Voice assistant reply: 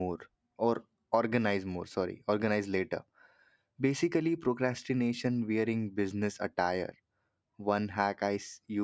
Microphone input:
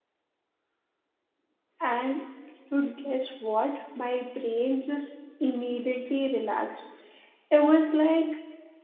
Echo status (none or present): none